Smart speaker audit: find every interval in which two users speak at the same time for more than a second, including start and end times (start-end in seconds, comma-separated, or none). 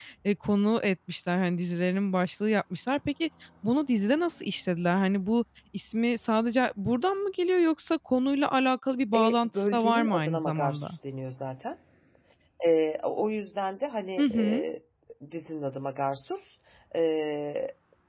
9.2-10.8